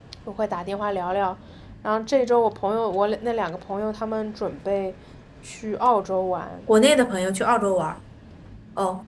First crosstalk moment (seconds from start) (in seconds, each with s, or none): none